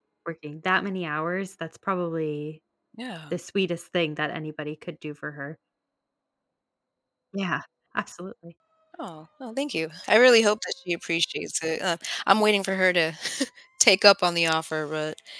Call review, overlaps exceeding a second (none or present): none